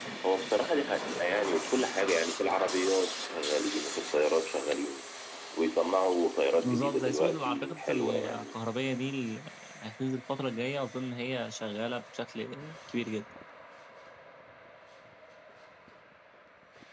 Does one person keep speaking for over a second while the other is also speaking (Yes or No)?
Yes